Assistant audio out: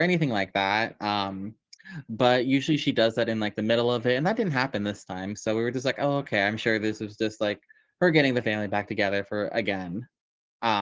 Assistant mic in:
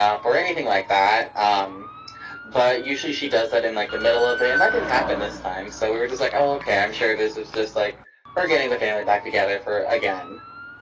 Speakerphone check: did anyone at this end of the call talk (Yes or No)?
No